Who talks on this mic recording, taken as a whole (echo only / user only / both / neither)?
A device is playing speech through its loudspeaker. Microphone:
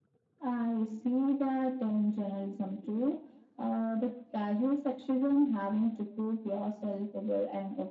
echo only